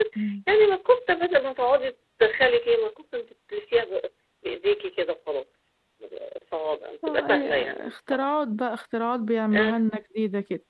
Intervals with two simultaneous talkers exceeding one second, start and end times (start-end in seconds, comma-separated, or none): 7.0-8.2